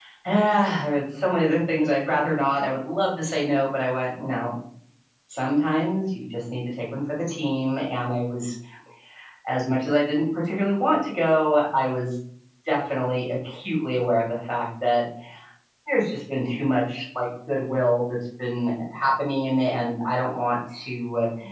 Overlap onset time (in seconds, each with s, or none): none